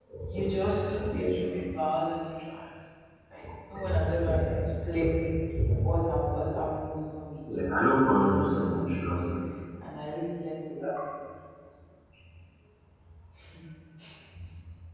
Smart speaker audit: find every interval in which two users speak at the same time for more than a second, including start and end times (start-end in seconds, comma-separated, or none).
7.5-9.0